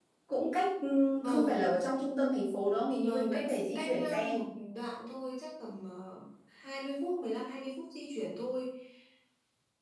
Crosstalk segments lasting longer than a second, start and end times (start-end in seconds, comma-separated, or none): 3.0-4.3